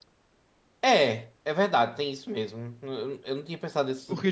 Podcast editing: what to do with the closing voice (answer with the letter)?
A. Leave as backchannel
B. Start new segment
B